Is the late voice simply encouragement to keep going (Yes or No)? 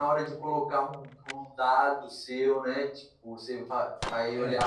Yes